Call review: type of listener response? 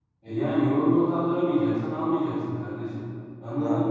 taking over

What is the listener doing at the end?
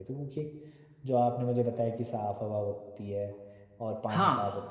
listening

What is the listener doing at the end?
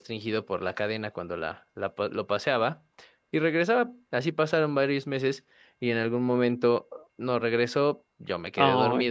listening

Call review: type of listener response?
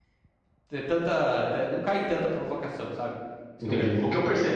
taking over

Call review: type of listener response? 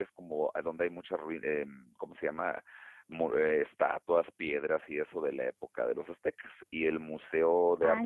listening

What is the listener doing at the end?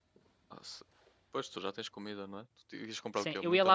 taking over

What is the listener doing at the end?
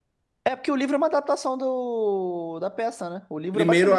taking over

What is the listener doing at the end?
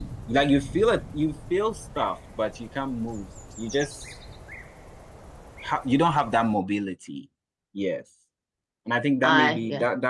listening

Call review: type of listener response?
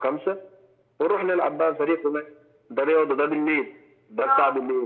listening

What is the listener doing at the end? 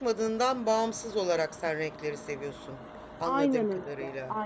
taking over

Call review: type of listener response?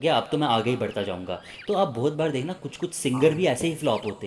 listening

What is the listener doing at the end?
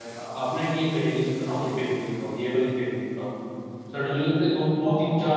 listening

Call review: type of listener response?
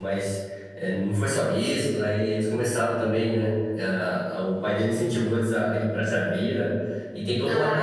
listening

